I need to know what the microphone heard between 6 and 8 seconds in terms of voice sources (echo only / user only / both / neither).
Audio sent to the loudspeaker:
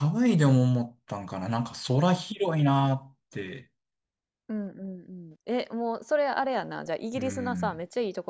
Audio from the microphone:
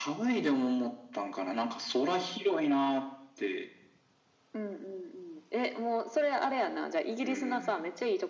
echo only